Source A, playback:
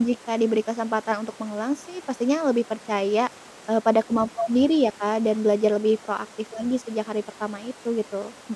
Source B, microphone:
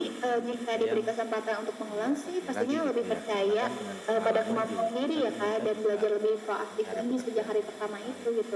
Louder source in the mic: echo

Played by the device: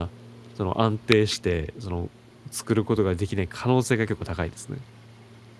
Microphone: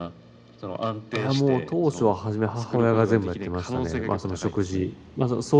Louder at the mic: user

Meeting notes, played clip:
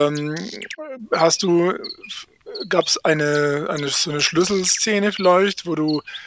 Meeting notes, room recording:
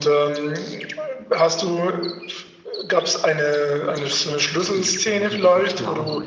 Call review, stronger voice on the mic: echo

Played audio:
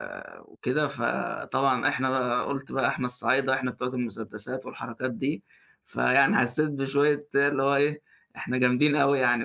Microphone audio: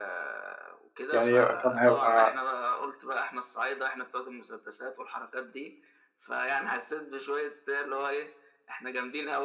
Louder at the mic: user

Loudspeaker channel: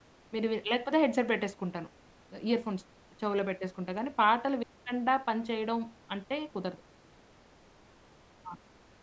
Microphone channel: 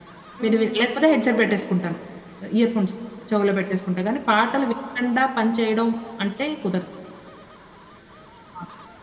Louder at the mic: echo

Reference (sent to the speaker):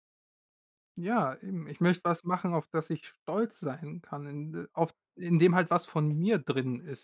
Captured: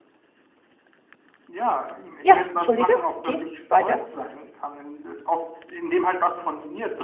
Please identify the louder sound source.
user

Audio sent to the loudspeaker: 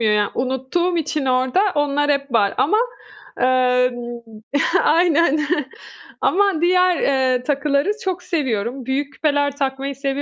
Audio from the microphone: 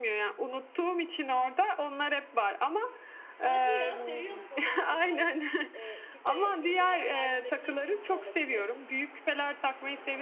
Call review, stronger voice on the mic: echo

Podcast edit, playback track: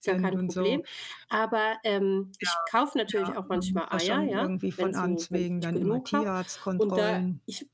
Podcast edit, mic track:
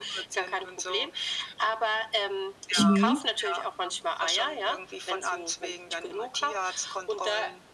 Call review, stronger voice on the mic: user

